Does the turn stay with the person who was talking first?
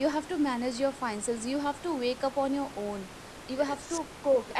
Yes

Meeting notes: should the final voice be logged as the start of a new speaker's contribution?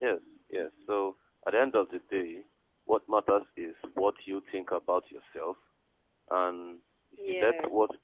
No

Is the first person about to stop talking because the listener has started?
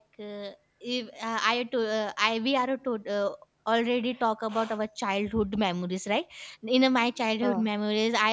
No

